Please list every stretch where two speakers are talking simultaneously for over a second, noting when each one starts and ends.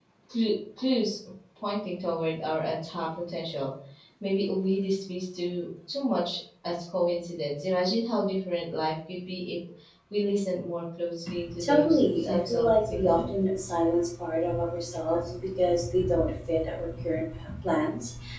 11.6-13.3

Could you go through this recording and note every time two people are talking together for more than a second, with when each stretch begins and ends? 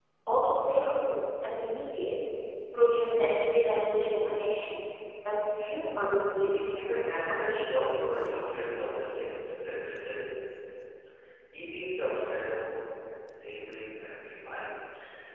6.4-7.7

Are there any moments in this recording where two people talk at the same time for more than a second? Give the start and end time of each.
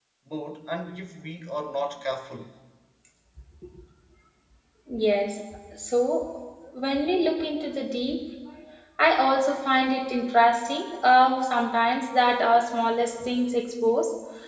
none

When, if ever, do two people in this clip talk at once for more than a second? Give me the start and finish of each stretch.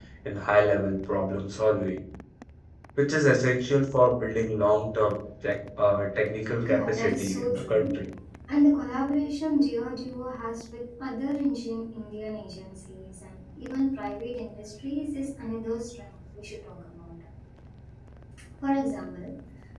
6.6-7.9

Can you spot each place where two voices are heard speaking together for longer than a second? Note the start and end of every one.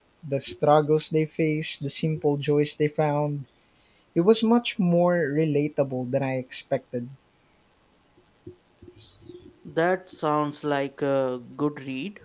none

